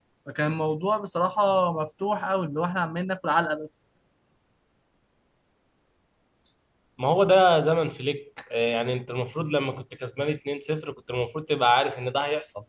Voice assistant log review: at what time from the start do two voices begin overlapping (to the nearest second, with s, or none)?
none